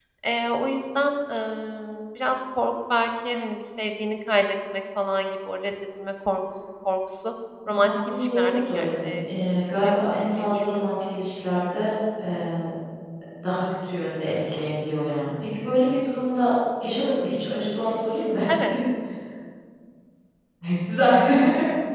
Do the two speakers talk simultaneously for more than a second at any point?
Yes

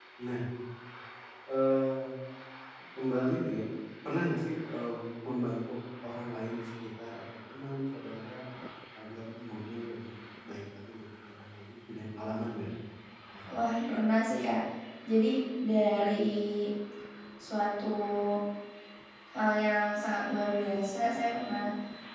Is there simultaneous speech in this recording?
No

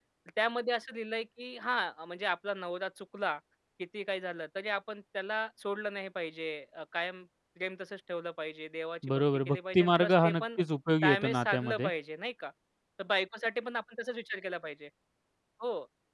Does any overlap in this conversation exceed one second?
Yes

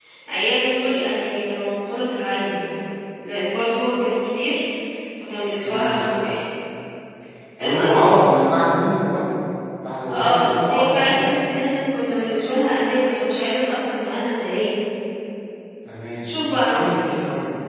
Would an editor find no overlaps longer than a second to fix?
No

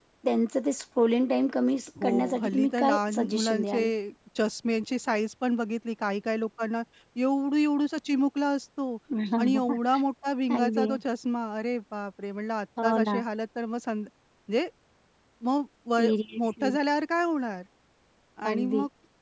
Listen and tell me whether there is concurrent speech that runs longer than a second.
Yes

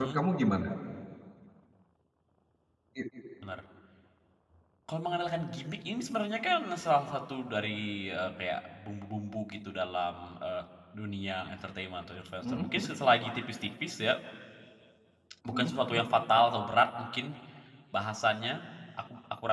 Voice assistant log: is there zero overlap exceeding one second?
Yes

